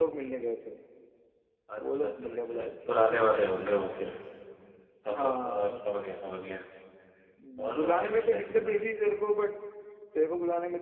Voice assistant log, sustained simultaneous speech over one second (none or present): present